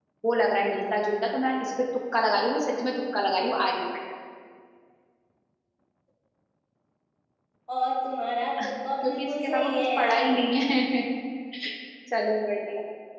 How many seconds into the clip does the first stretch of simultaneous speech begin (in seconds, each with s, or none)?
9.0 s